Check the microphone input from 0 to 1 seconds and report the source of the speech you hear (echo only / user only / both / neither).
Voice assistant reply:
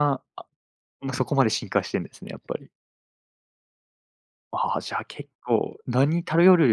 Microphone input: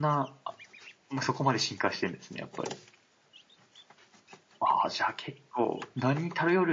echo only